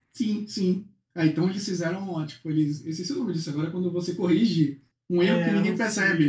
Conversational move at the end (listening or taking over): taking over